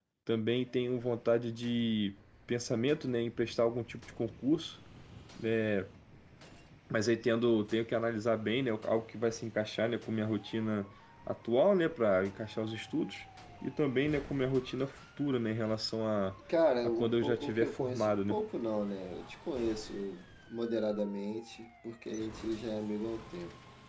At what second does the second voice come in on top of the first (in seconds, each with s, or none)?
16.8 s